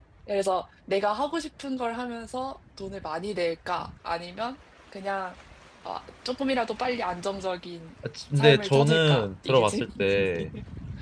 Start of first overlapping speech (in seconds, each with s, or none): 8.3 s